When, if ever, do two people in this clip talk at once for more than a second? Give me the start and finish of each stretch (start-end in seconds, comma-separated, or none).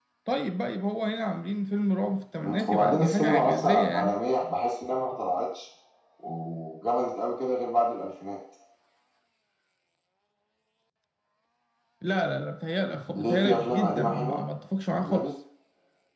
2.4-4.1, 13.2-14.4